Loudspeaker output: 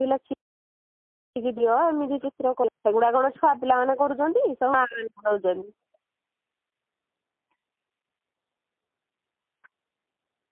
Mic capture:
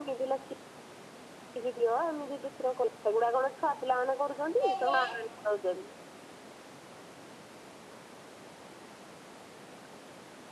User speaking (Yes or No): Yes